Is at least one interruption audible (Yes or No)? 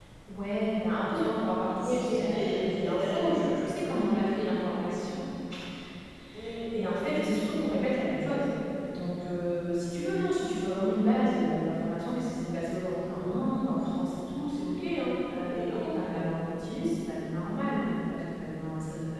Yes